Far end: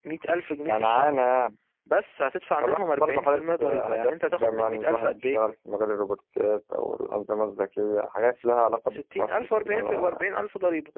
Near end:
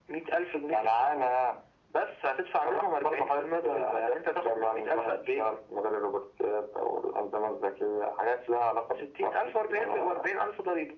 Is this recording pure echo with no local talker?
Yes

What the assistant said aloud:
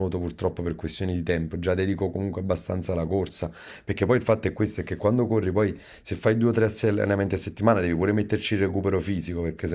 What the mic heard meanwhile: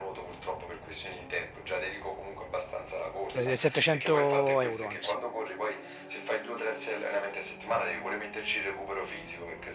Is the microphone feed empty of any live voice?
No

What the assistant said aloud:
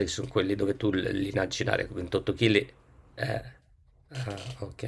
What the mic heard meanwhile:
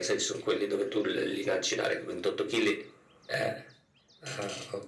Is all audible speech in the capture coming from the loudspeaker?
Yes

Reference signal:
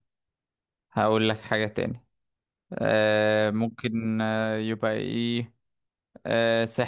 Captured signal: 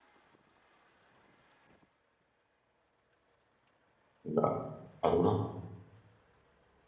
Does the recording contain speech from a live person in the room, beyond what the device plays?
Yes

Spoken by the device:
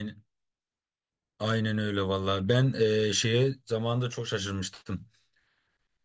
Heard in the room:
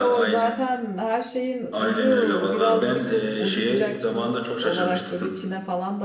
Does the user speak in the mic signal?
Yes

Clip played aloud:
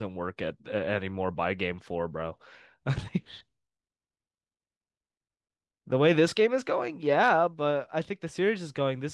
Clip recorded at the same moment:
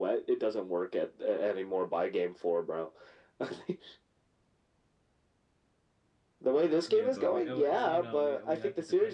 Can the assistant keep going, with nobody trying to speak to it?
No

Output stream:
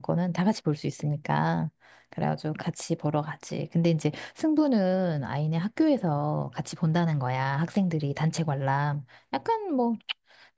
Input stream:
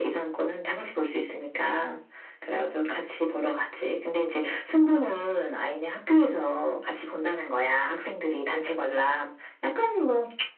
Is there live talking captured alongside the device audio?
No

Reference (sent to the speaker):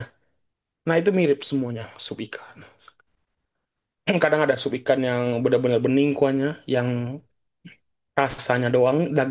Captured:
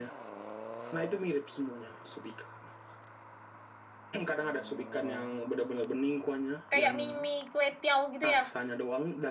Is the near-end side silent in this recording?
No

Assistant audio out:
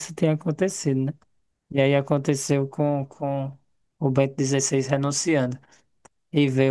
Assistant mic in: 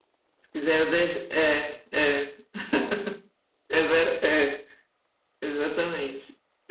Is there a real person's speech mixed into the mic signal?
Yes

